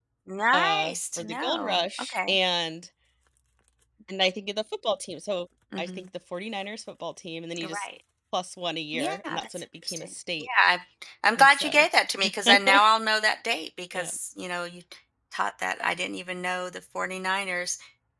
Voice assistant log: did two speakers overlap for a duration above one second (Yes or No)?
Yes